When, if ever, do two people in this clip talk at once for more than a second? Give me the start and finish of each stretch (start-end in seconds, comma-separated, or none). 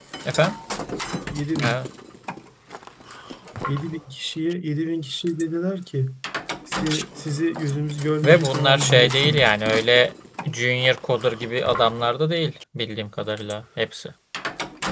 8.2-9.5